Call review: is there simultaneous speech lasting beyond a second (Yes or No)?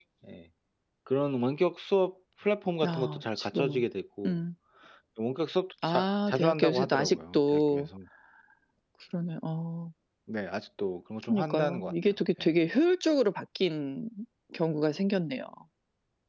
Yes